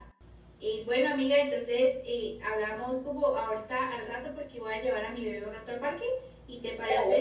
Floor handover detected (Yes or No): Yes